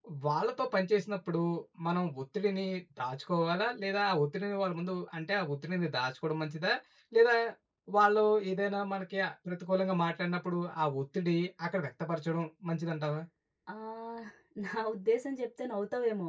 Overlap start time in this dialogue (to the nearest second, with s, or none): none